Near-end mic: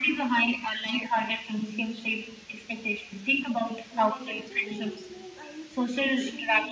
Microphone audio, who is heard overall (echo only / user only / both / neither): both